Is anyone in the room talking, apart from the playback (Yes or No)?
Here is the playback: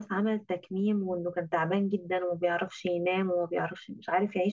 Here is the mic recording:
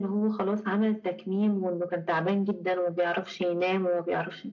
No